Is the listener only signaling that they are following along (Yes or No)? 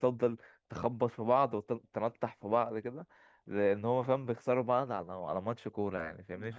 Yes